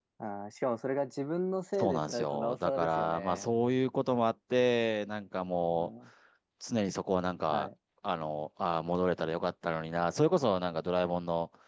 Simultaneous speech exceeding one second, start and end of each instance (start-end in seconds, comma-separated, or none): 1.8-3.5